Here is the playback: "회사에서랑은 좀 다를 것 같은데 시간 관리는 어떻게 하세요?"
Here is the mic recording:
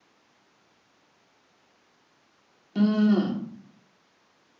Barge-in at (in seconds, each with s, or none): 2.7 s